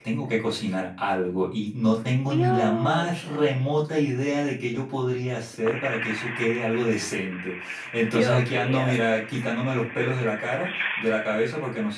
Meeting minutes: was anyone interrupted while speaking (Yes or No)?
Yes